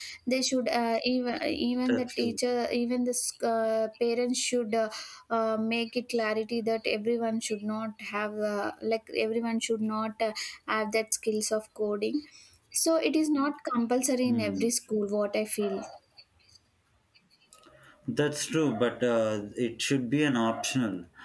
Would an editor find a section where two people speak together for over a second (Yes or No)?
No